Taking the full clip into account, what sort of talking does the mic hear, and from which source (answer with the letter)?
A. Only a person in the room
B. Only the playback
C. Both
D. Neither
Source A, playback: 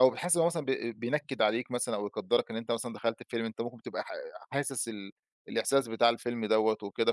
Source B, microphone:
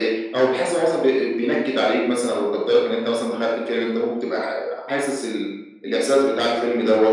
B